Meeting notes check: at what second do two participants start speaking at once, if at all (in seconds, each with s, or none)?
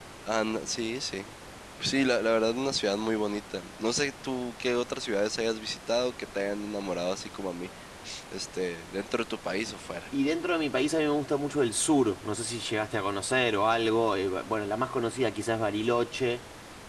none